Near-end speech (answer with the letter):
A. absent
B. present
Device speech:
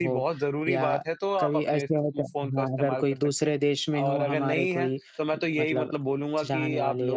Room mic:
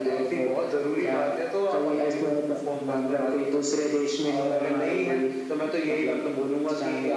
A